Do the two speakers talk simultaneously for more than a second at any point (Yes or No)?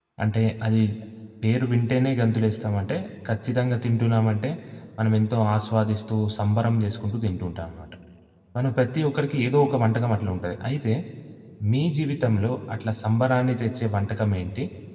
No